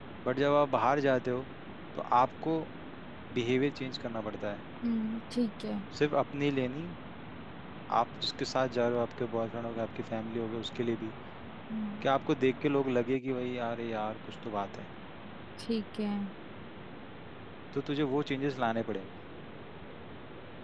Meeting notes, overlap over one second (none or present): none